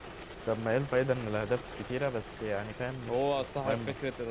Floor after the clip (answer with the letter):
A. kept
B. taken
B